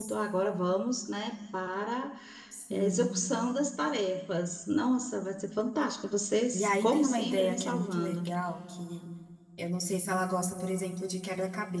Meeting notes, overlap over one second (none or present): present